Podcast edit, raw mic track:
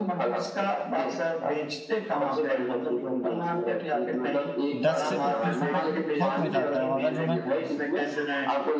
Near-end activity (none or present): present